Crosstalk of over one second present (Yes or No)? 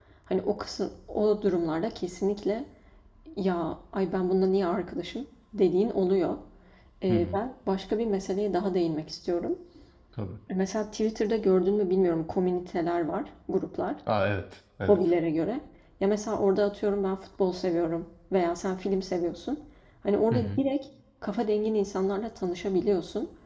No